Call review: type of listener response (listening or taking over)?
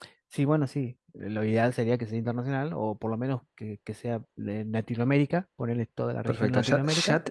taking over